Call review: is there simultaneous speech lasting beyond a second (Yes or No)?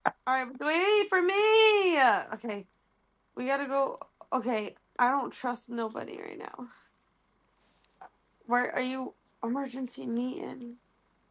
No